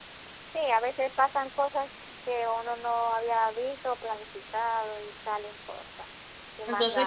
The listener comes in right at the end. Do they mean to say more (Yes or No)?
Yes